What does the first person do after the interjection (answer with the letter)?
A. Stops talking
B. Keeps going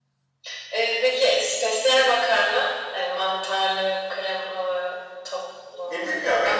A